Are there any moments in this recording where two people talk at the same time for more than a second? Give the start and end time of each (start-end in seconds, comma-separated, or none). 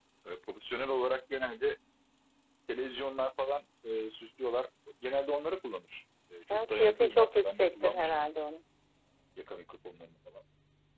6.7-8.1